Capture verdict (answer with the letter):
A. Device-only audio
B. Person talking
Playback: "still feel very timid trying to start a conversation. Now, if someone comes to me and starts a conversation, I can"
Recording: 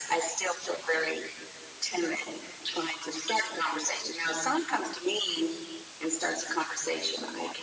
A